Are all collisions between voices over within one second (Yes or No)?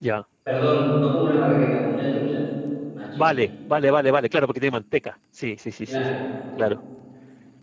Yes